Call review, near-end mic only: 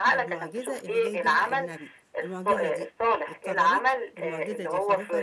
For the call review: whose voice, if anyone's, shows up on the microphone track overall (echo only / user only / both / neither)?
both